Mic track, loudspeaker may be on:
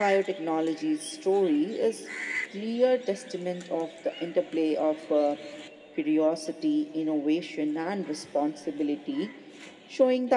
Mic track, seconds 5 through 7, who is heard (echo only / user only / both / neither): echo only